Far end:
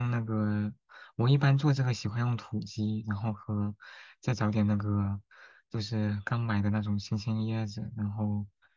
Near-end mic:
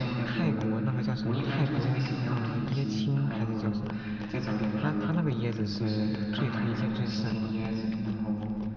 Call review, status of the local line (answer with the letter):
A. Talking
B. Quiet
A